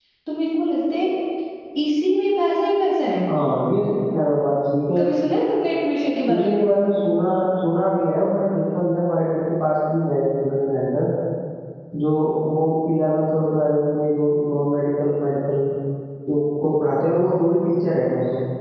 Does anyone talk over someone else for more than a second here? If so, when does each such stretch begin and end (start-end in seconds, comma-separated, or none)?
none